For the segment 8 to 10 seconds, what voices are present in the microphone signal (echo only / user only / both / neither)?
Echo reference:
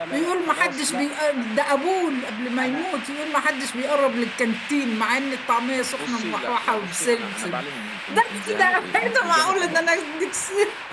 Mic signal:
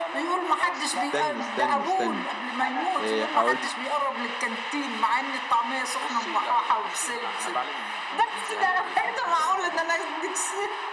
echo only